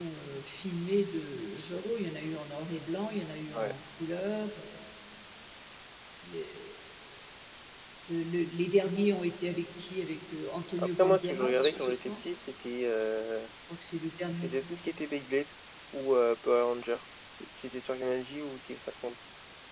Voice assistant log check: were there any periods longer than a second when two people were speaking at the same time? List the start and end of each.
10.8-12.2

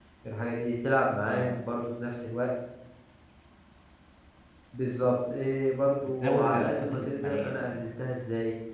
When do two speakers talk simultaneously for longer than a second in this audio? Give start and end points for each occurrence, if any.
6.0-7.8

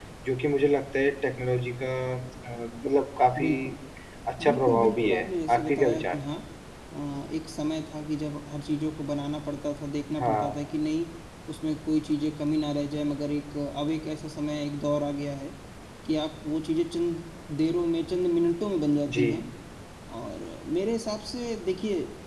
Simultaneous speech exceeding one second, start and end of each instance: 4.4-6.2

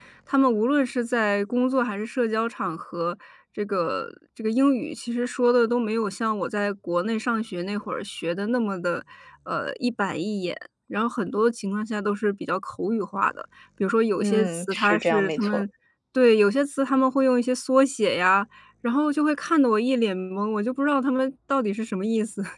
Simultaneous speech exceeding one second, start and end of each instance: 14.2-15.6

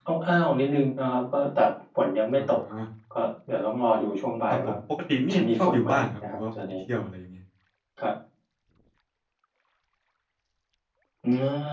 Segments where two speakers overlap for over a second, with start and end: 5.3-6.6

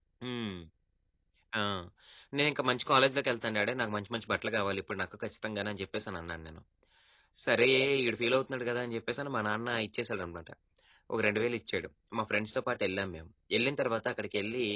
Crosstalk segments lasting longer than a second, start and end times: none

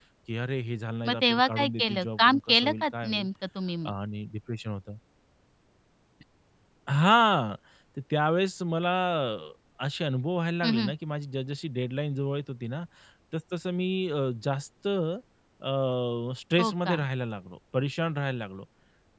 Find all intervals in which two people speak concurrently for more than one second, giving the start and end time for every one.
1.1-3.3

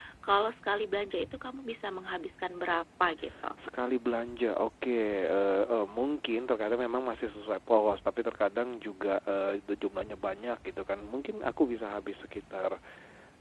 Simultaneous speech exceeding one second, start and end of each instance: none

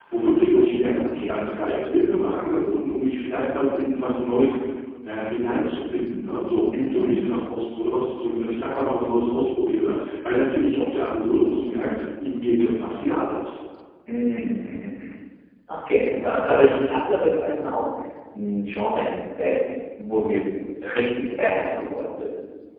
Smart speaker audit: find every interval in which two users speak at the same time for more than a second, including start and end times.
none

